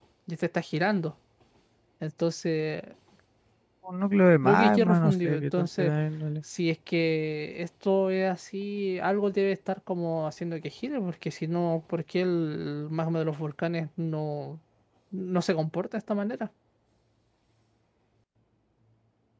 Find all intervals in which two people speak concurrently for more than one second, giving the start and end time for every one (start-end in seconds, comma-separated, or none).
4.4-5.9